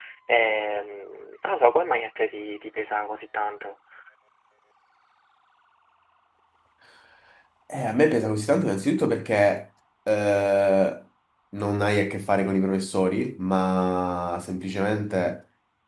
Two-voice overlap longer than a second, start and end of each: none

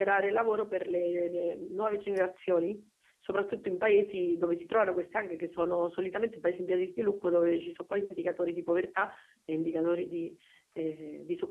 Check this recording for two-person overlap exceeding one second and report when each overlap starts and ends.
none

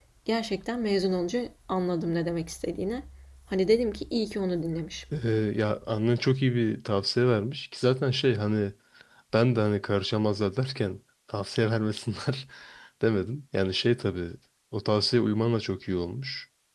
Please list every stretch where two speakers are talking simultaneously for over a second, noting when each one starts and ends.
none

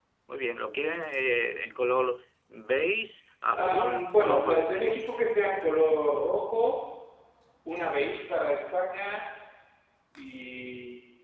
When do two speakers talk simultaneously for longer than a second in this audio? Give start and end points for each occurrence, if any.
3.5-5.0

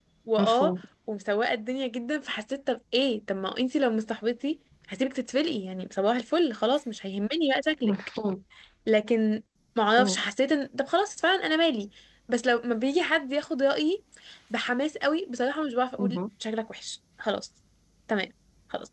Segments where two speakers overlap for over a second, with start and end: none

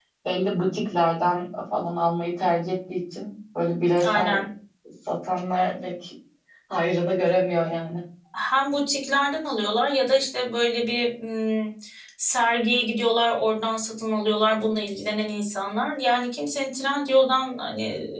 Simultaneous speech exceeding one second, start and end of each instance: none

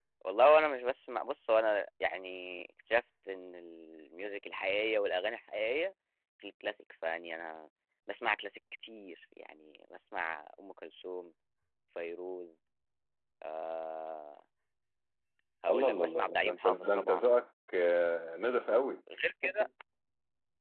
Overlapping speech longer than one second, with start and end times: 15.7-17.3

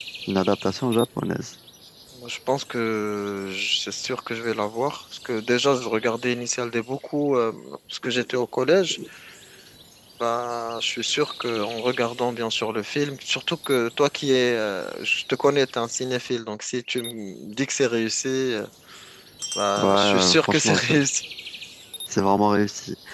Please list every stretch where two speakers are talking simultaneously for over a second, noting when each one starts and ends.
19.8-21.0

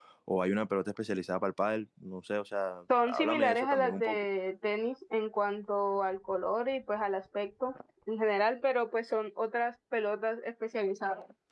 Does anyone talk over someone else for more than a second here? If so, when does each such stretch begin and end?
3.0-4.2

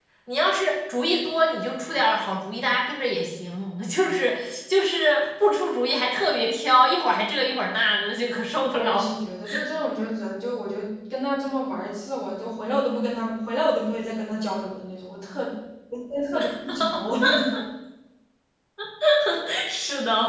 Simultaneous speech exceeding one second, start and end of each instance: none

